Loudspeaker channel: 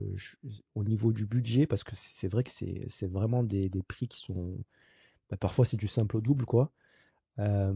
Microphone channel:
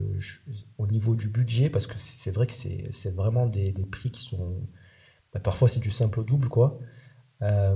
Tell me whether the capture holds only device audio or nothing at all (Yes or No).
Yes